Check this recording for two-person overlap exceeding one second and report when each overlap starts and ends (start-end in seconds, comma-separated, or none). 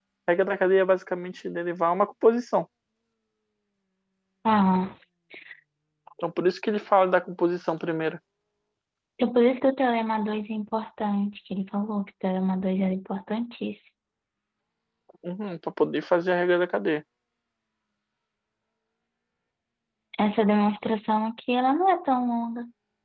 none